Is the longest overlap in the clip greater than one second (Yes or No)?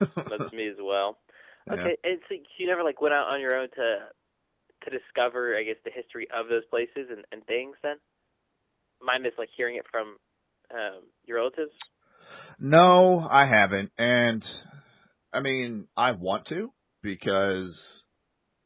No